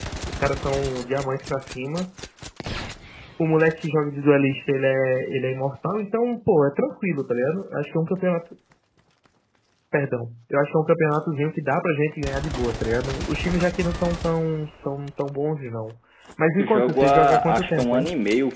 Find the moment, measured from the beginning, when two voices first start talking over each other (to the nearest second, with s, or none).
17 s